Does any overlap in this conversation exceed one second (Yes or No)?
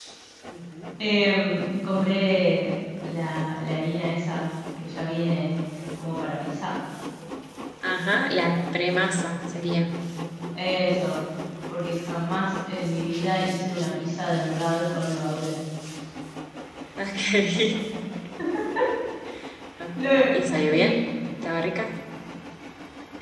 No